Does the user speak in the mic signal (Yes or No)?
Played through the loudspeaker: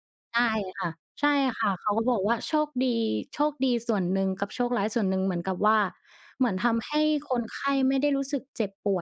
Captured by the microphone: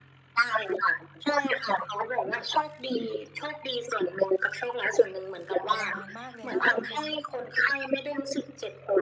Yes